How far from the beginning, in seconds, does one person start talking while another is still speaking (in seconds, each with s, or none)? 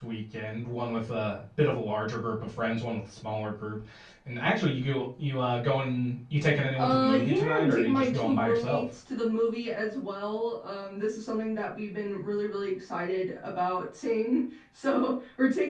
6.8 s